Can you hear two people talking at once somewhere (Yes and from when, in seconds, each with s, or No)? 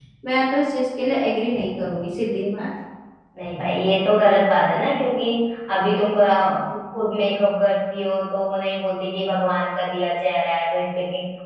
No